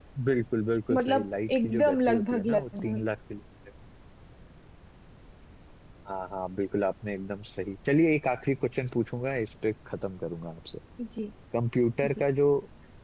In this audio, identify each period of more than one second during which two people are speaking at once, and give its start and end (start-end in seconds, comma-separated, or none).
0.9-3.0